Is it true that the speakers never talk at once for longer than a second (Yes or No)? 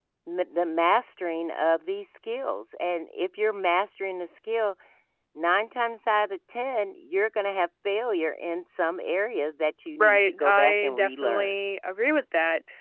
No